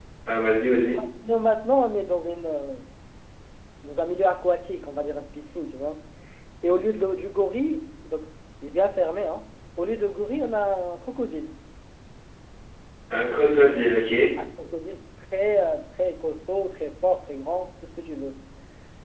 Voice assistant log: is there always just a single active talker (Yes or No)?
Yes